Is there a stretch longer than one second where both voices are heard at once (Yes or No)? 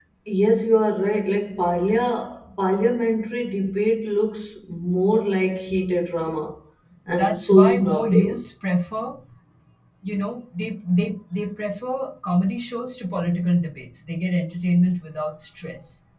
Yes